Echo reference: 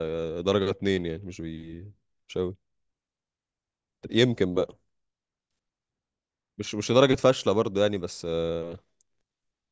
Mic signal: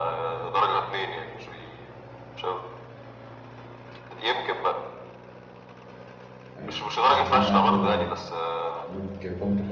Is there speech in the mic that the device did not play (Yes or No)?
Yes